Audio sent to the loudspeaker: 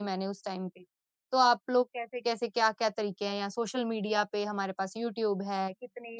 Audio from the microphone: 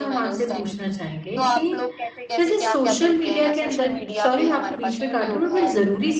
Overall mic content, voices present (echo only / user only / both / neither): both